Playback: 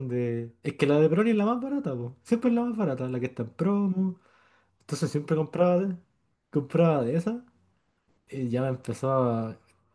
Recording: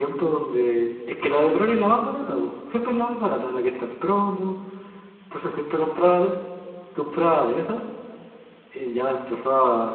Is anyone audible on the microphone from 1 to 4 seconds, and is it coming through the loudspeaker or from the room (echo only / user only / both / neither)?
echo only